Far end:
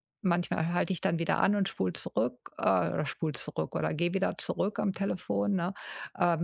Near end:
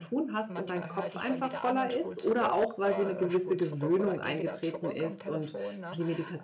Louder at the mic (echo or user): user